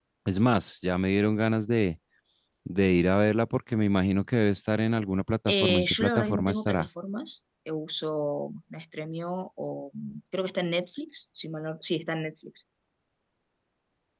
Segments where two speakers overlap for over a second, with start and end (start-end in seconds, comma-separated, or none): 5.5-6.9